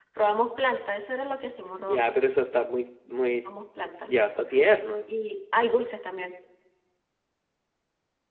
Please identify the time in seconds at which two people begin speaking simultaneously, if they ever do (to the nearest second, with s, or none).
none